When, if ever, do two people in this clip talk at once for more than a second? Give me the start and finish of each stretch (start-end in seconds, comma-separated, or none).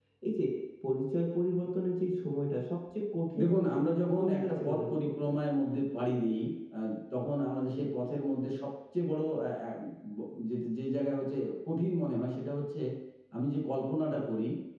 3.4-5.1